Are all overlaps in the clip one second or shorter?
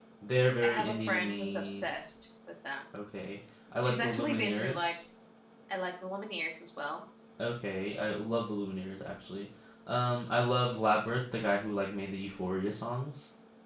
No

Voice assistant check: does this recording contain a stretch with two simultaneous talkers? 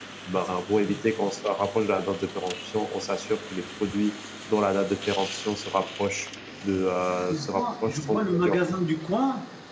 Yes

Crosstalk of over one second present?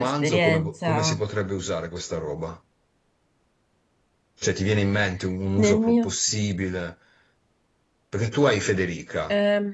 Yes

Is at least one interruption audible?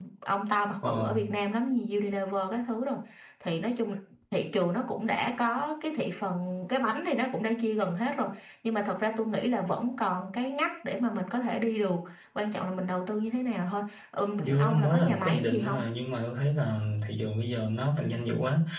Yes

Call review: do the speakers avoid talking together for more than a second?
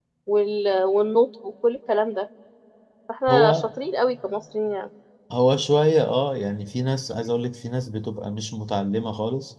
Yes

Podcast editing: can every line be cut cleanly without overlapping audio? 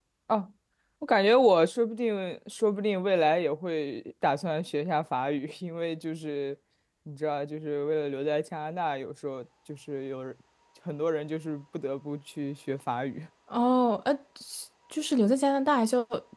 Yes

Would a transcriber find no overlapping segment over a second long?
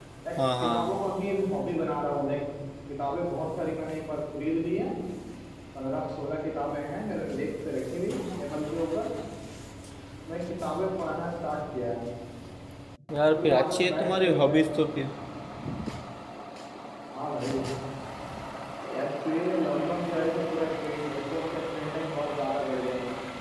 No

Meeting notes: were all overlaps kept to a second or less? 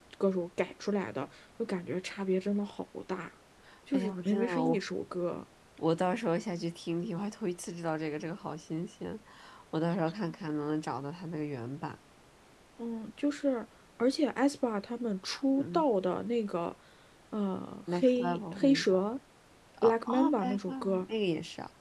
No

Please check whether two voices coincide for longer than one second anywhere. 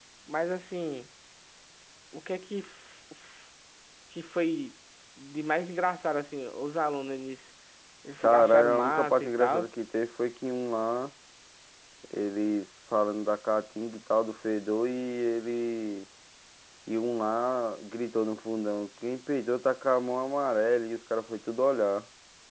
Yes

